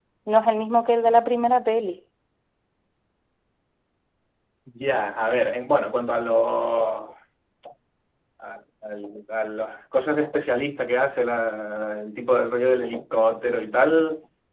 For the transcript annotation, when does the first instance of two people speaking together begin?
none

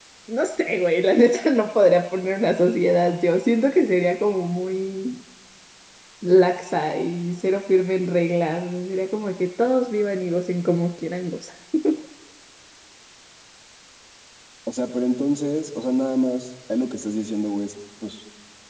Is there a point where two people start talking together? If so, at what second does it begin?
none

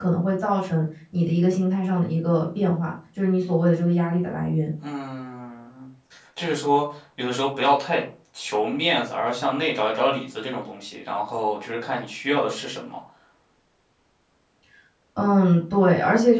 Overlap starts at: none

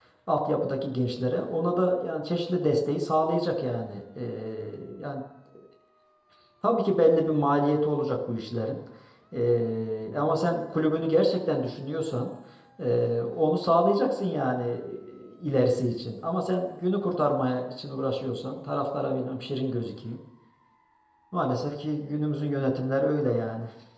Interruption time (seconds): none

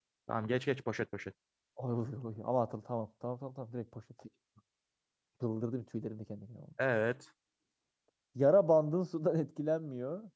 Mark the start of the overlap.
none

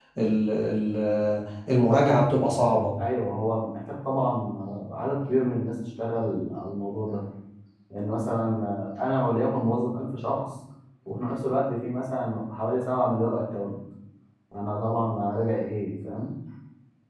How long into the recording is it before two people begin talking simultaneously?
none

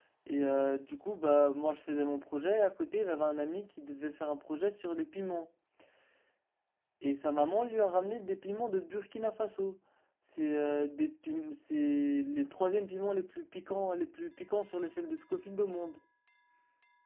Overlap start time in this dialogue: none

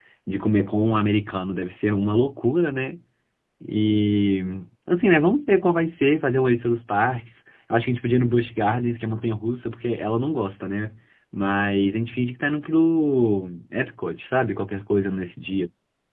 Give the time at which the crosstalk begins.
none

